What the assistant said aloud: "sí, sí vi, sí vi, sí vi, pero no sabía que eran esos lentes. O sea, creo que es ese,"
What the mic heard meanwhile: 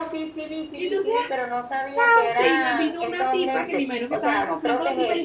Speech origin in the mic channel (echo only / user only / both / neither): both